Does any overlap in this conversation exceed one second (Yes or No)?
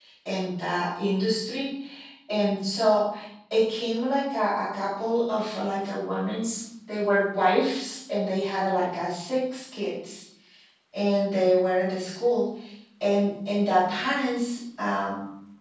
No